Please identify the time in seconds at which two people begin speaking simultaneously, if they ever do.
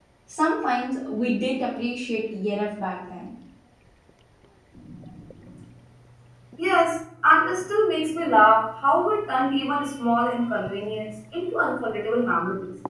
none

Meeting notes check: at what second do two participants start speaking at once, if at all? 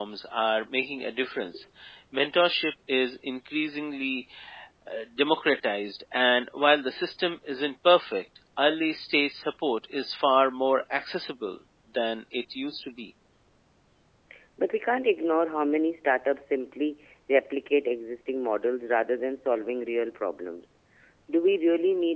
none

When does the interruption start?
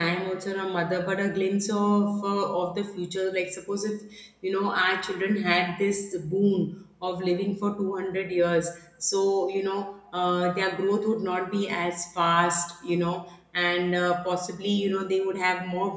none

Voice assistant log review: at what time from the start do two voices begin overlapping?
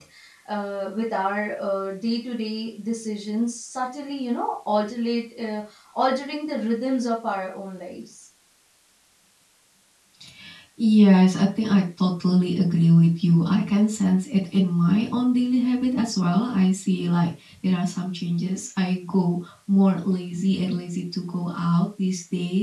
none

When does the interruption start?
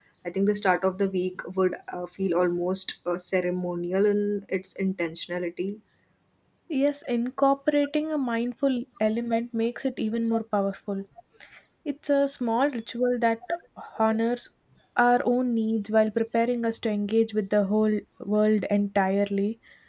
none

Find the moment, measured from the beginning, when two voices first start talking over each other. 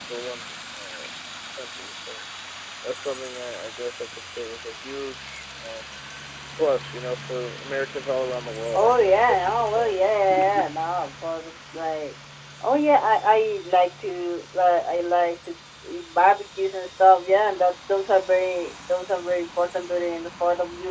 8.7 s

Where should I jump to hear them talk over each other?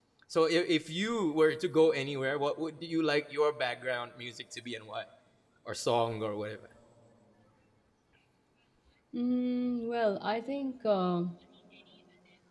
none

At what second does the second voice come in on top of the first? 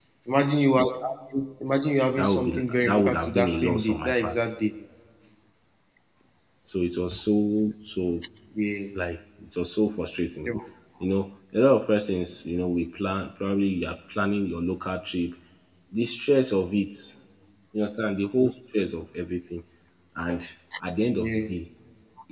2.1 s

